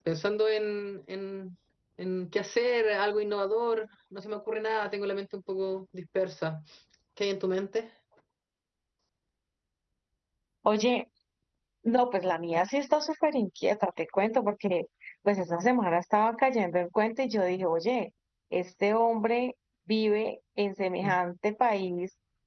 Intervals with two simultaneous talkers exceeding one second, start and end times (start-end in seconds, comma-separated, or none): none